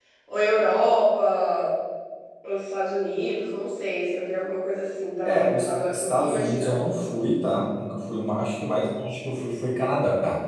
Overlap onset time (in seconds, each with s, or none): 5.2 s